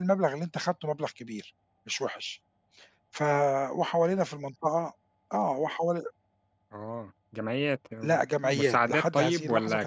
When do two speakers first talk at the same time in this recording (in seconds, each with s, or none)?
8.0 s